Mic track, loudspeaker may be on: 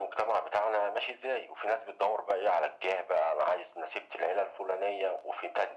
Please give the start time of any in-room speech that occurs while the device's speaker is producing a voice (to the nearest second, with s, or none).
none